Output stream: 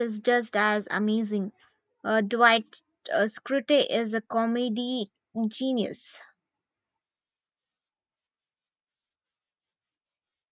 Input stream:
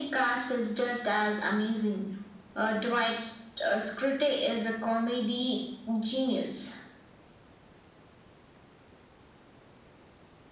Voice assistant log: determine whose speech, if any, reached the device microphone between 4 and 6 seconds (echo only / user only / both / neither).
echo only